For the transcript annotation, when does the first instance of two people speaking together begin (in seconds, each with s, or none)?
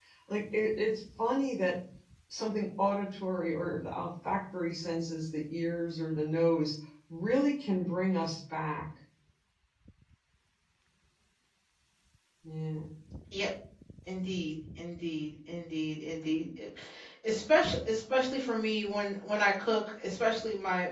none